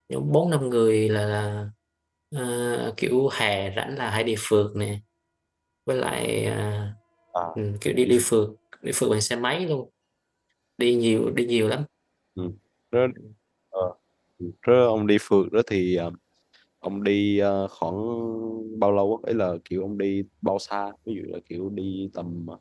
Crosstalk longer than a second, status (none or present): none